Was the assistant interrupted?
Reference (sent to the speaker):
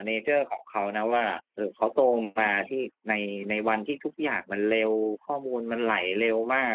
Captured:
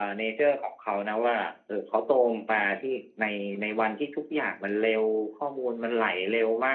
No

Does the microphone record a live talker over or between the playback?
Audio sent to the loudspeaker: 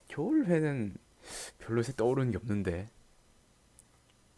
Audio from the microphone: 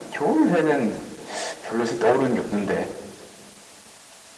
No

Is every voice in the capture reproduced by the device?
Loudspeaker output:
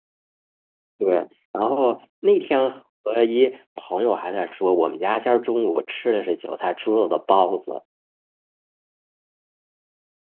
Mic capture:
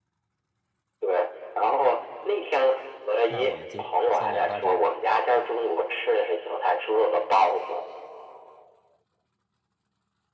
No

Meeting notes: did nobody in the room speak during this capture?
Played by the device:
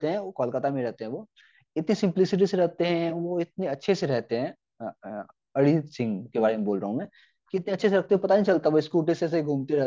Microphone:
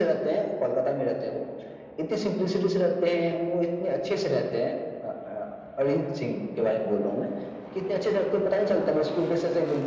Yes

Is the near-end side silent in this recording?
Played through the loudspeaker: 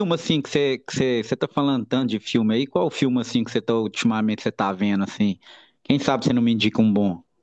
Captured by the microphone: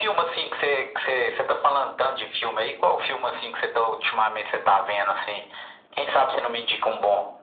Yes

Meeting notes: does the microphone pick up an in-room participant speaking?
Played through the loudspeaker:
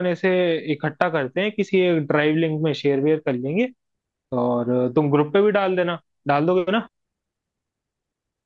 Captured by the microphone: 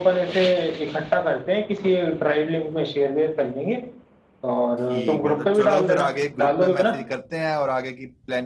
Yes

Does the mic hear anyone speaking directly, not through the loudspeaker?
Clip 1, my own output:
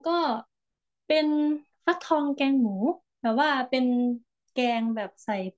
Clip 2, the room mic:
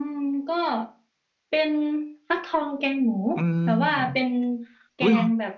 Yes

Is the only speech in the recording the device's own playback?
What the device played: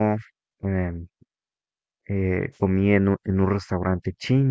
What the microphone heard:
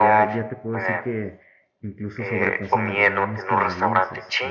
No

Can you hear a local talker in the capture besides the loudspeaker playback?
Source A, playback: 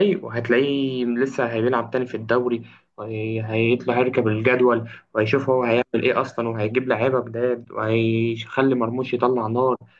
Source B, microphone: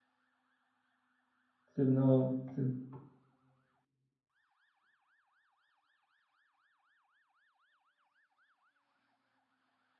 Yes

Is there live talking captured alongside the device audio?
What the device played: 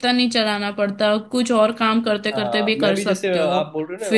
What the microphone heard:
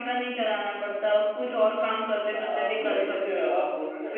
No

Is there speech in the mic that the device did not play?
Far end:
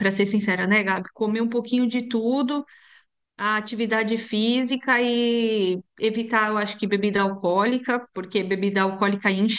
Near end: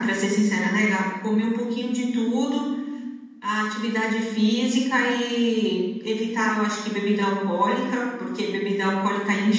No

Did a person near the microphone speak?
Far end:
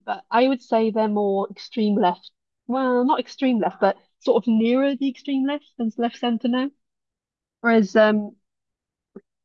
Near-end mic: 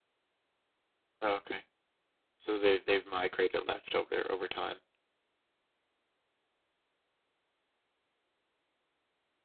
Yes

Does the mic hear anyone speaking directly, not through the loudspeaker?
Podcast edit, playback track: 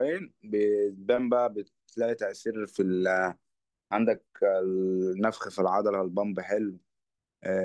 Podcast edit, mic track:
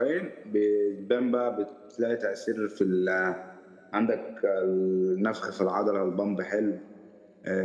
No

